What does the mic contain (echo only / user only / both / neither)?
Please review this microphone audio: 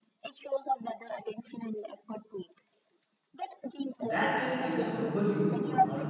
both